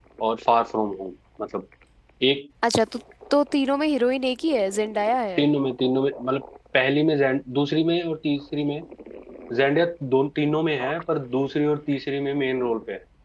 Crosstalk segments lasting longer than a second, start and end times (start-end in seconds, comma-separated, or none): none